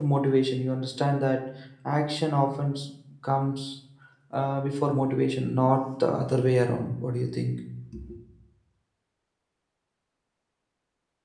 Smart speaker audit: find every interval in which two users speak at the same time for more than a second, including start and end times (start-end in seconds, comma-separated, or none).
none